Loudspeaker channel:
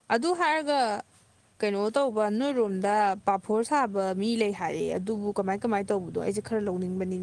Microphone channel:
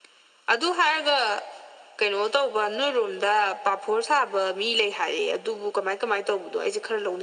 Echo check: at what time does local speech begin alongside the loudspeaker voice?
none

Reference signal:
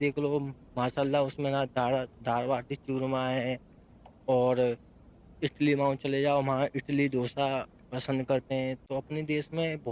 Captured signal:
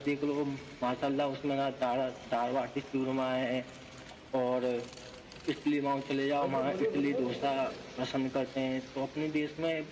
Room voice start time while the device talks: 6 s

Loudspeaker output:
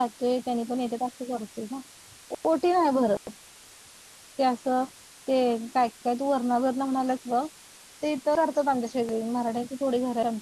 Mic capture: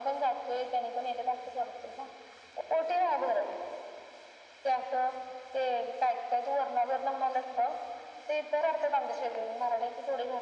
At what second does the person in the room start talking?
none

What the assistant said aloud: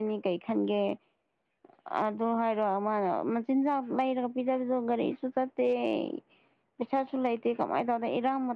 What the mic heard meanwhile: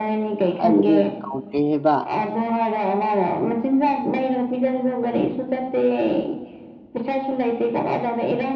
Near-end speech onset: 1 s

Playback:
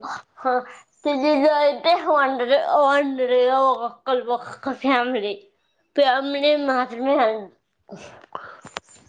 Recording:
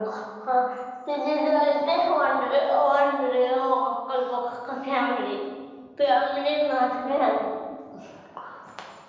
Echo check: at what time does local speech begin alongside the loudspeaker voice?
none

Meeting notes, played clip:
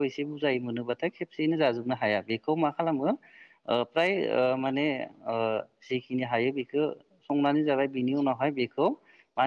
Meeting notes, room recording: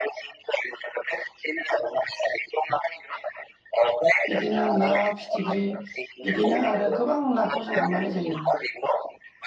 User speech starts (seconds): 4 s

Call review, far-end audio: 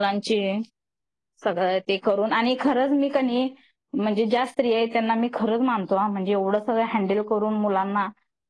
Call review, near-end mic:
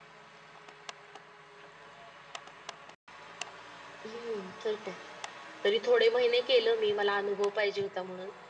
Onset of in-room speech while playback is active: 4 s

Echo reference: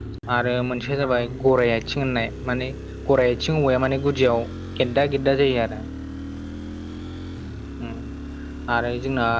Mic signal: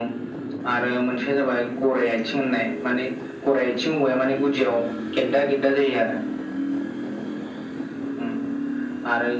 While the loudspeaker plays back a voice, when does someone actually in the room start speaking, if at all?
none

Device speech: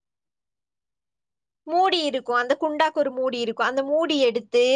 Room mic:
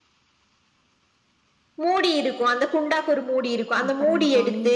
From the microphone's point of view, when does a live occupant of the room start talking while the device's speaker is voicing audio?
4 s

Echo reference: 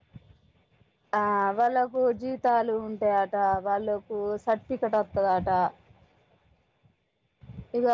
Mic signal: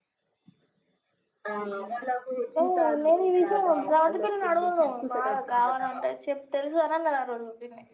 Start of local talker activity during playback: 1 s

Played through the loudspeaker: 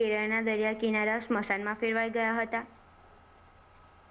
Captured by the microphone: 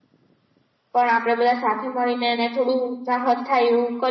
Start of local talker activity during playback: 1 s

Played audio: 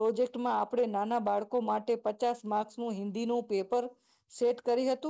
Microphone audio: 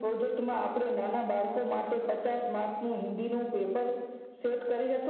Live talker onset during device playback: none

